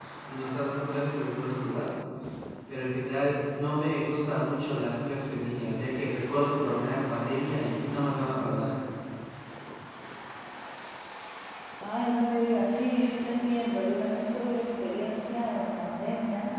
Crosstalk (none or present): none